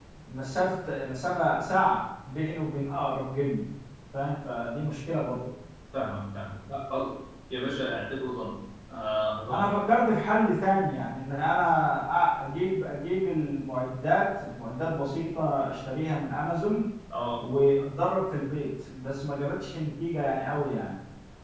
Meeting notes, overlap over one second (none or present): none